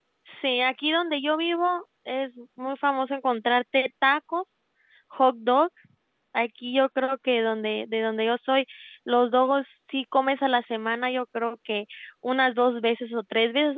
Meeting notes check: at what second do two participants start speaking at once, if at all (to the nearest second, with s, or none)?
none